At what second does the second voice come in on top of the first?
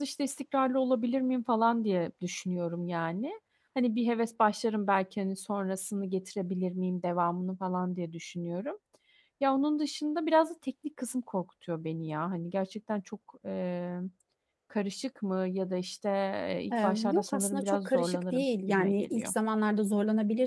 16.8 s

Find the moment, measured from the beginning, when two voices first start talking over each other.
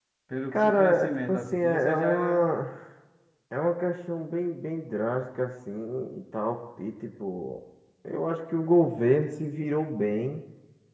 0.5 s

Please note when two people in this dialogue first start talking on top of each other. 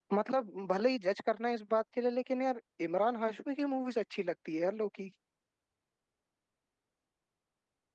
none

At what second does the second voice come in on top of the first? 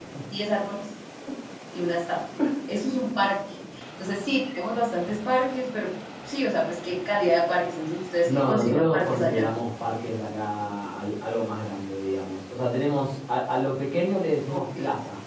8.2 s

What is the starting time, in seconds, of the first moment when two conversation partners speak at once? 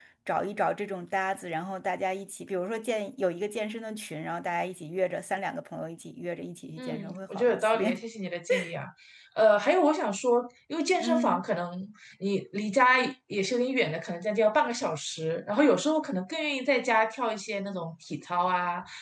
6.8 s

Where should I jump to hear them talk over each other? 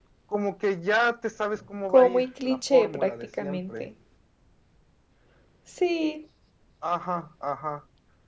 1.9 s

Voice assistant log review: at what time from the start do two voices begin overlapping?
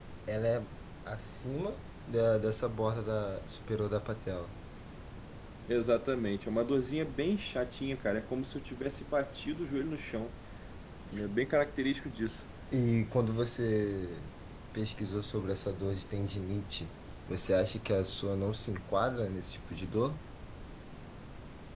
none

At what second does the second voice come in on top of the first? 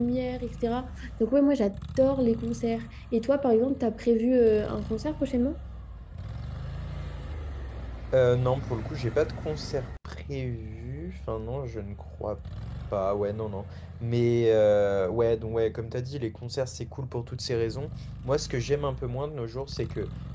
none

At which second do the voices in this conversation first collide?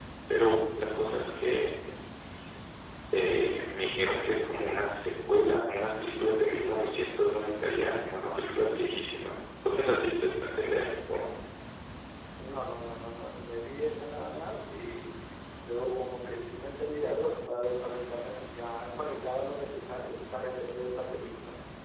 none

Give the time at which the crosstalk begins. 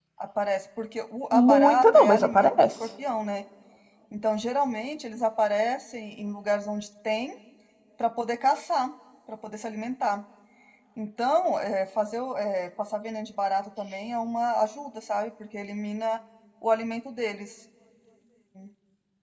1.3 s

